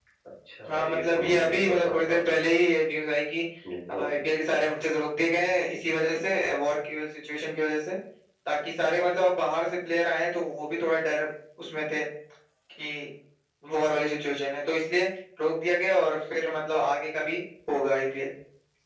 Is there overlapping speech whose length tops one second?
Yes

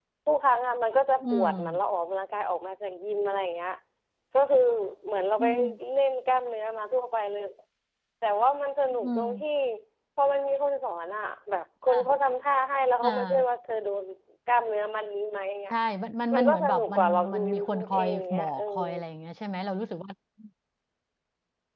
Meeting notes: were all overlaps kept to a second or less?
No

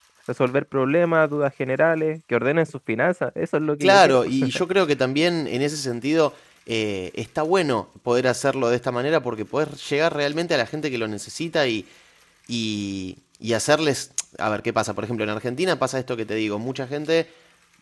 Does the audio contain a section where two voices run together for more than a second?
No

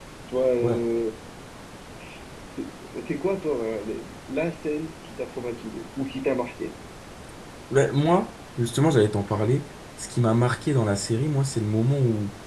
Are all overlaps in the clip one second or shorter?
Yes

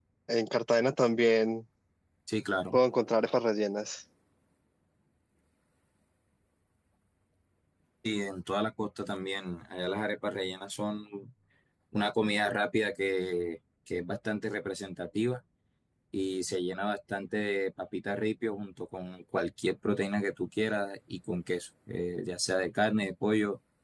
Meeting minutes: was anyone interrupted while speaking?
No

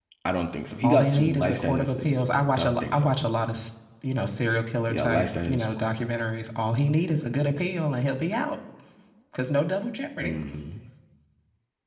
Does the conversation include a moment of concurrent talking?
Yes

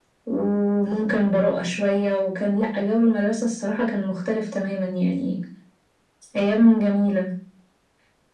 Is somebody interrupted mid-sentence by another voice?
No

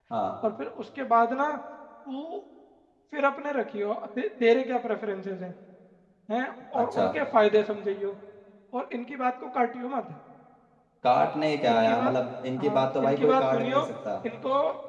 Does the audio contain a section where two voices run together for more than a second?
Yes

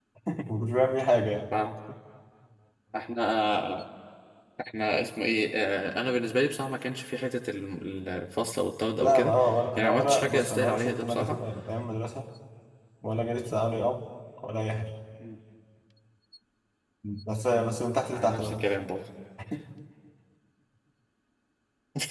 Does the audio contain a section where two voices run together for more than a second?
Yes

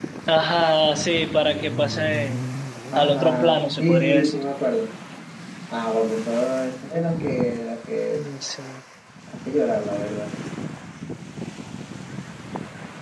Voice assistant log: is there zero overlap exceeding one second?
No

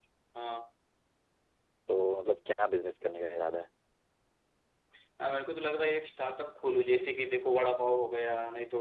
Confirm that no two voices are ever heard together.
Yes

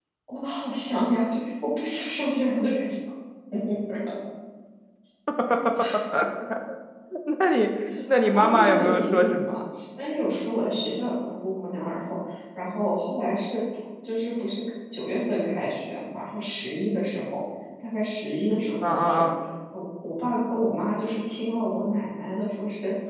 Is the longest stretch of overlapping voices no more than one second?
No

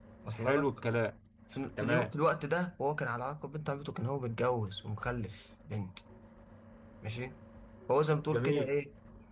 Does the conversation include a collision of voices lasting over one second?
No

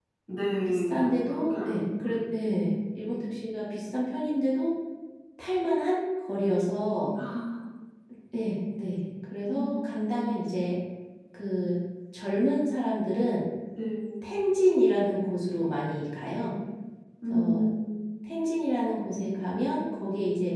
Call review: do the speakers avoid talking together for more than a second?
No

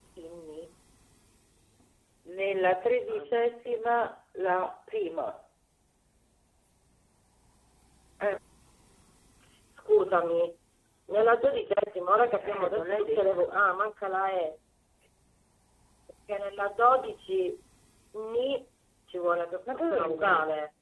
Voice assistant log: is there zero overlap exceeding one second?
No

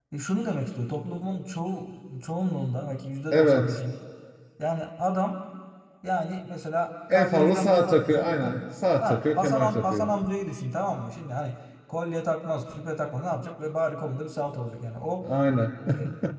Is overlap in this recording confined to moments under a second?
No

